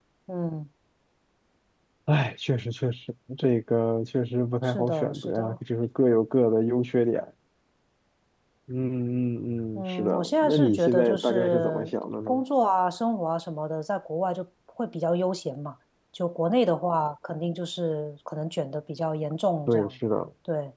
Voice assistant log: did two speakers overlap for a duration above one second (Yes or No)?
Yes